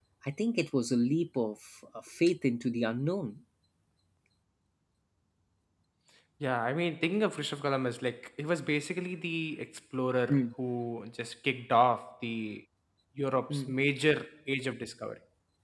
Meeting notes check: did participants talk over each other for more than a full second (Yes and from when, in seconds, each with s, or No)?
No